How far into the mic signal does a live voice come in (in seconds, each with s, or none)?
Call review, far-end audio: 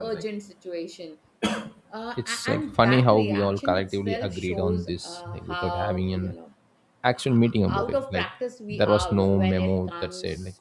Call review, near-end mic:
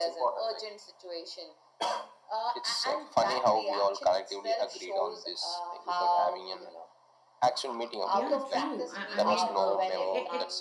8.1 s